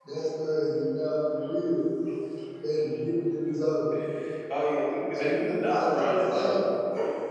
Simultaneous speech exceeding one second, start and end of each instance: 5.1-6.6

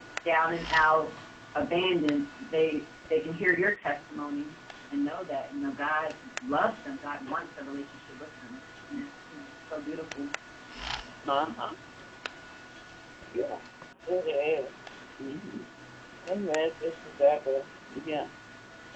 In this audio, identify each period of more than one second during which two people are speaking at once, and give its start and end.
none

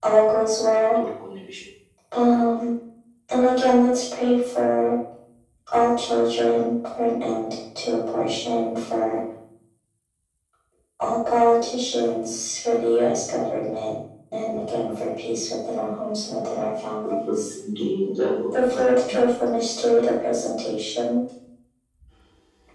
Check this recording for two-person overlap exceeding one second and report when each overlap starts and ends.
none

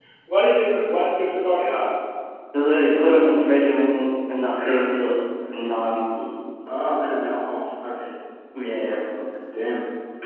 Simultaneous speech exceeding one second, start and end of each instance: none

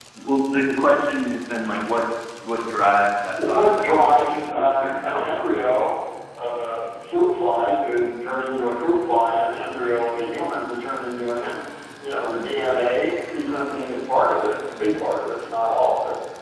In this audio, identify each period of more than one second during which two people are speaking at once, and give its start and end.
3.4-5.5

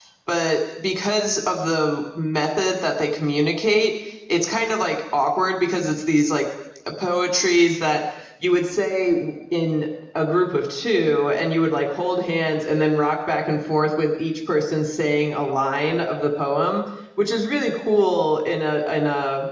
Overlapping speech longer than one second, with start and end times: none

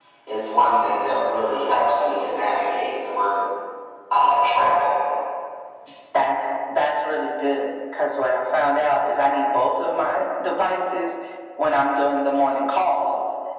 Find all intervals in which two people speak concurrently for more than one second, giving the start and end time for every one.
none

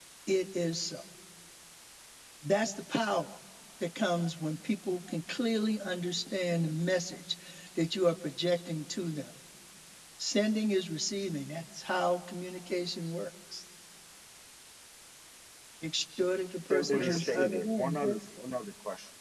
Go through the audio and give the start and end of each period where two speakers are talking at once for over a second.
16.7-18.2

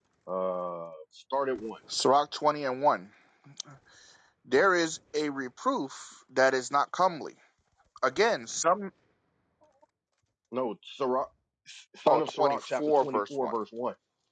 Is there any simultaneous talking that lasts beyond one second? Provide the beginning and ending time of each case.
12.1-13.5

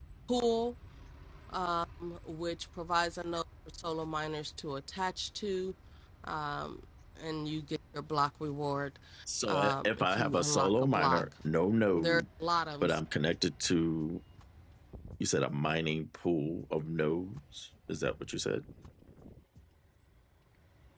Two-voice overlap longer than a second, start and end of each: 9.5-11.2

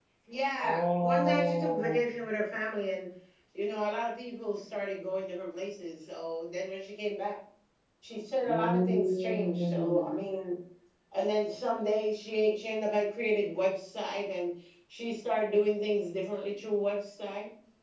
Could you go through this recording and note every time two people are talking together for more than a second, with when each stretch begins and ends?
0.6-2.0, 8.5-10.2

